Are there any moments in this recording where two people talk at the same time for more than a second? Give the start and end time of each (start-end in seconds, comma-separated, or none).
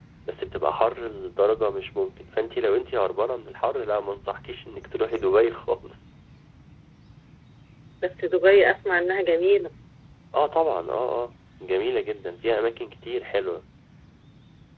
none